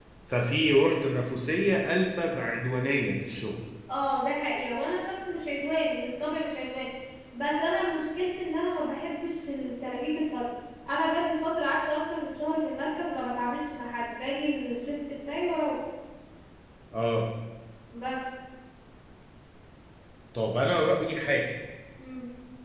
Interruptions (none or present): none